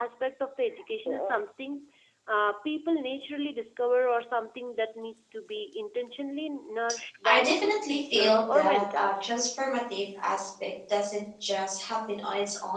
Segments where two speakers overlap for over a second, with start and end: 7.2-9.3

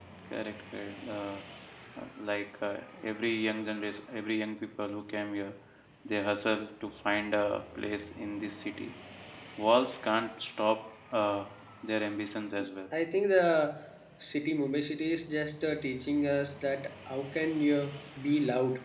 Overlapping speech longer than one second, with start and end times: none

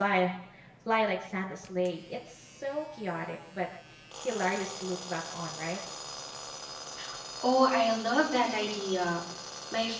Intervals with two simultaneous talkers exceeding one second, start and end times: none

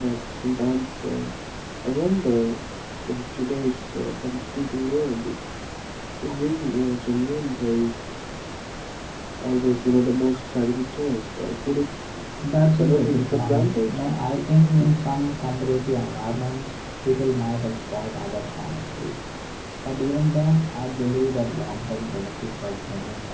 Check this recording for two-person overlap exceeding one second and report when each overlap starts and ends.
12.8-14.1

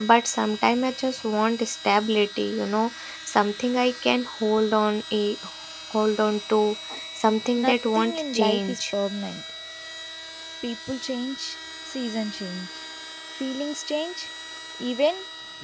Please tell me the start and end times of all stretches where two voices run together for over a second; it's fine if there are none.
7.6-8.8

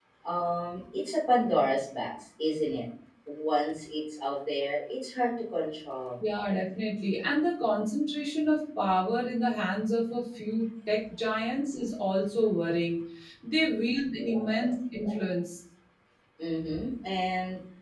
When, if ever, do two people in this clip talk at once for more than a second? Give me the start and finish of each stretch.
none

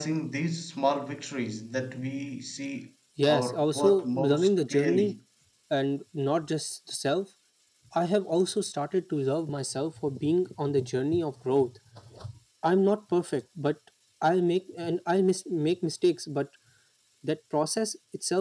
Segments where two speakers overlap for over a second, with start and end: 3.3-5.1

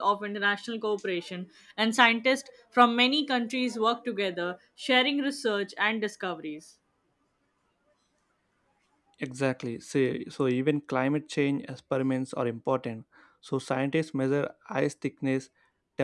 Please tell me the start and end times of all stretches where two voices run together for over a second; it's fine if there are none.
none

